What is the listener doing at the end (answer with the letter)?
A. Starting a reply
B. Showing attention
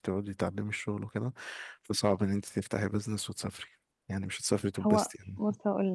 A